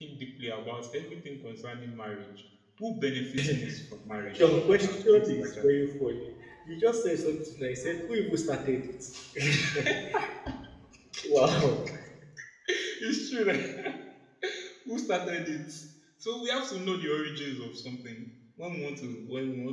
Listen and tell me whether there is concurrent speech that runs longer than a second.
Yes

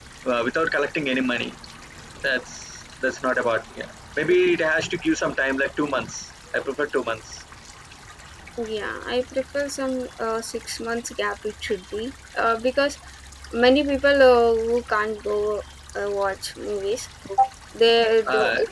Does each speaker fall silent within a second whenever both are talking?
Yes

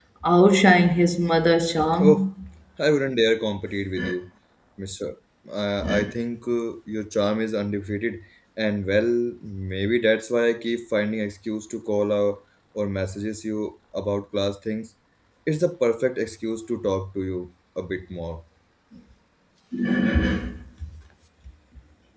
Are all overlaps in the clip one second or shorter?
Yes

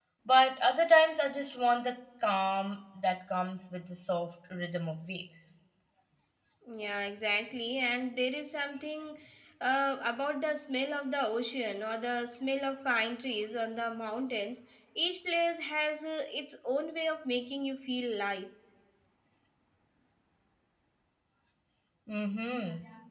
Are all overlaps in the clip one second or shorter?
Yes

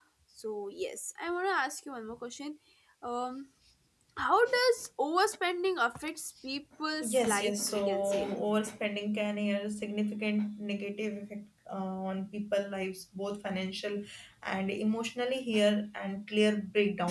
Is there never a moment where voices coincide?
No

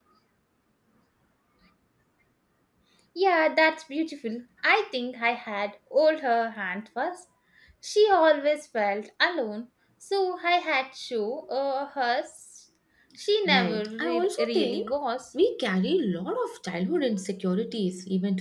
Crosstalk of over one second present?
Yes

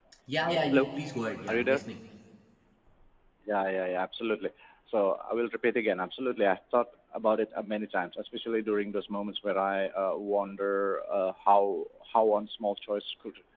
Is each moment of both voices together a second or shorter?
Yes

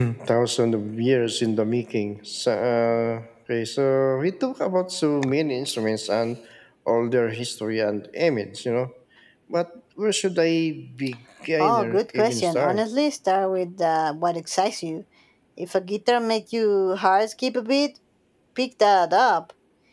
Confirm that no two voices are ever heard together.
No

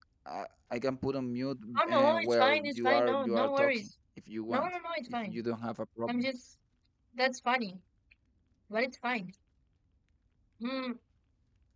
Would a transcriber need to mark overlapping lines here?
Yes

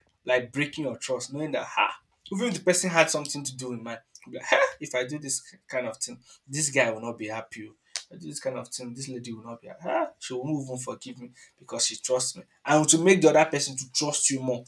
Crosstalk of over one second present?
No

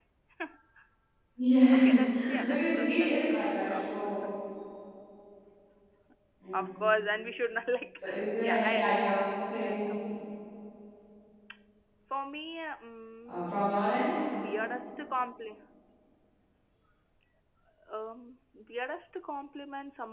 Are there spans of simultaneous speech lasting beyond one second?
Yes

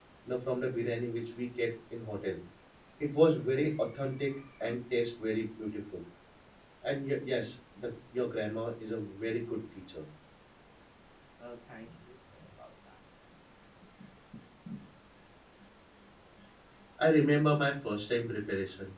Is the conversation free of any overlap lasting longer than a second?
Yes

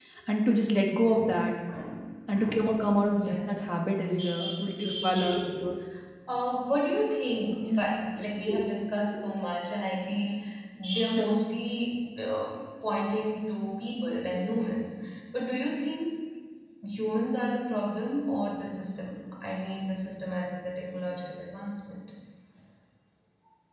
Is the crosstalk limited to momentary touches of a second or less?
No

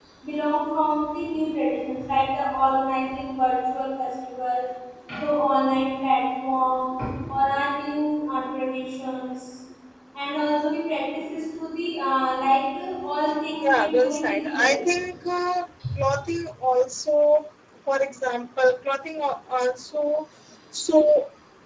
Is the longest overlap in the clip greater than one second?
Yes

